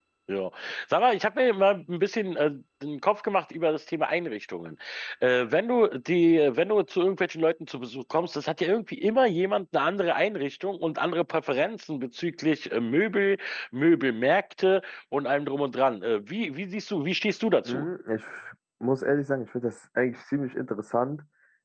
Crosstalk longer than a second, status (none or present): none